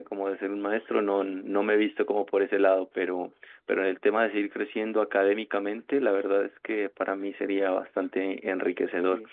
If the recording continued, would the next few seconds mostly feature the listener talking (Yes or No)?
No